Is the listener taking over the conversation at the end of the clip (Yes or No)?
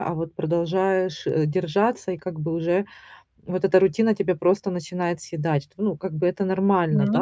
No